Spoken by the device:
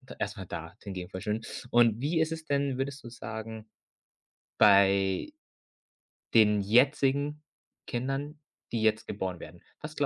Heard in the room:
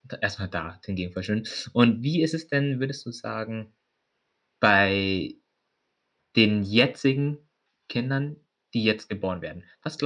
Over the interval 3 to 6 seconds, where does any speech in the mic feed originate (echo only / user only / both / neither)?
echo only